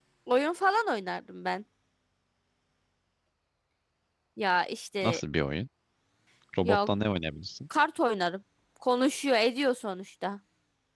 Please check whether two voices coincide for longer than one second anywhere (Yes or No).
No